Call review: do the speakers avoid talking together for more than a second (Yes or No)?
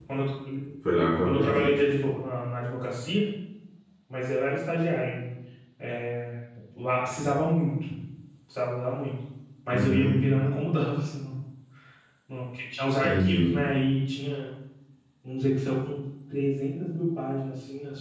Yes